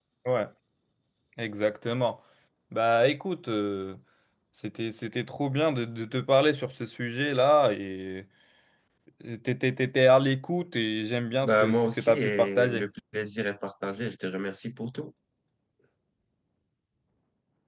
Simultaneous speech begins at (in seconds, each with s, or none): 11.4 s